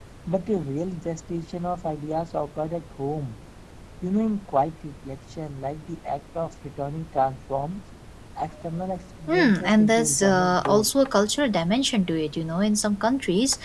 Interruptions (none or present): present